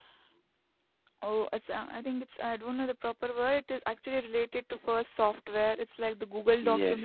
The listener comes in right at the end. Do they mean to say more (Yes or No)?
Yes